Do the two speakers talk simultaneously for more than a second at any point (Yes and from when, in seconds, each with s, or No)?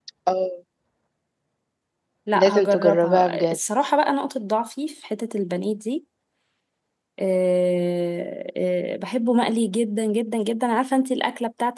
Yes, from 2.3 s